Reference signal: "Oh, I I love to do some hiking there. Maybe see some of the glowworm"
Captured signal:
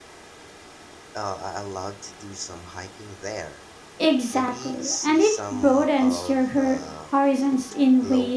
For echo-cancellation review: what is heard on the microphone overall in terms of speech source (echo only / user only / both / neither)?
both